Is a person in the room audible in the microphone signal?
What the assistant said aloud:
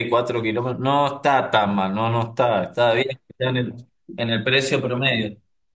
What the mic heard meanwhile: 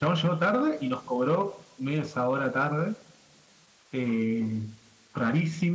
Yes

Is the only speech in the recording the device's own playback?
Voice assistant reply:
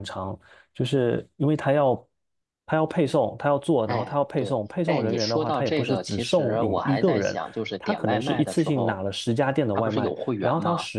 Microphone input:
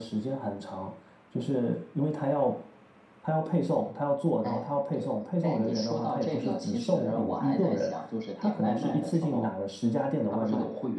Yes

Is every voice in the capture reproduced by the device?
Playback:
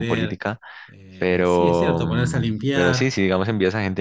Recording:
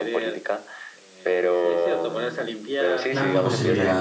No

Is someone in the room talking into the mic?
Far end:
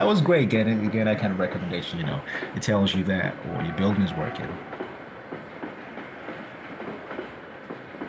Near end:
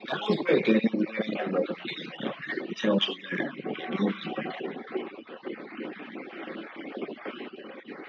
No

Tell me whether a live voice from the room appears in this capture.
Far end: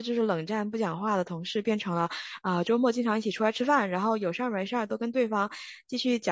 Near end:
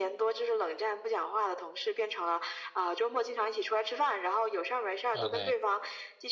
Yes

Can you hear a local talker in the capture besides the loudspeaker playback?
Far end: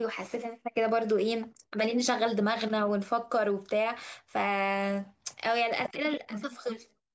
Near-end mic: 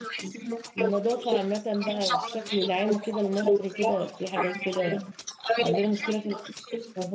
Yes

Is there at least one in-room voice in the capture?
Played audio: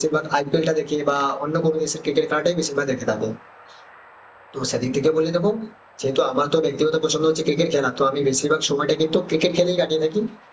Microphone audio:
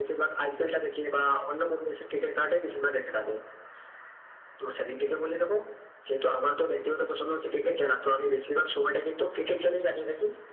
No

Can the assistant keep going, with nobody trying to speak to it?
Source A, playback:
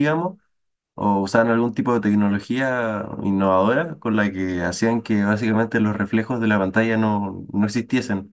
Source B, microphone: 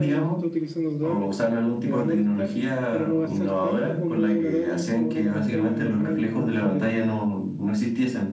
No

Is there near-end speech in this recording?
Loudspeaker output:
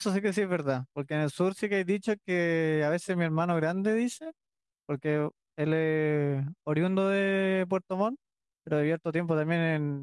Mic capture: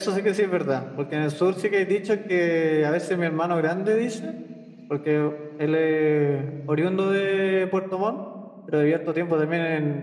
No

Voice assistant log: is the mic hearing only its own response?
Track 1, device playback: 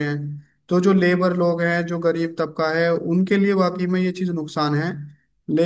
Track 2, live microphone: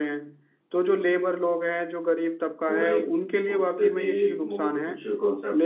No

